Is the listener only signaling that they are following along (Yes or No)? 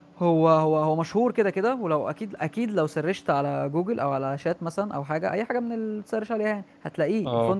Yes